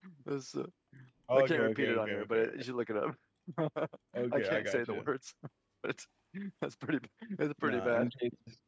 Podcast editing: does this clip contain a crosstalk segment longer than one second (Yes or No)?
Yes